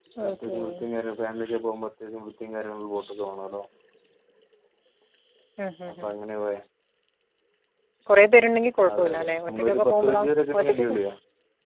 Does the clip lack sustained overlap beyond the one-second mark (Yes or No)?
No